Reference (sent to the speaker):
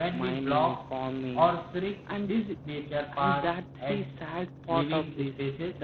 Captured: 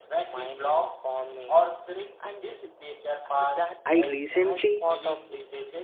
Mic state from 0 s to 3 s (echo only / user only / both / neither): echo only